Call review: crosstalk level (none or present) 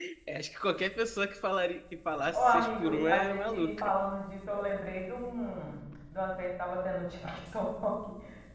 present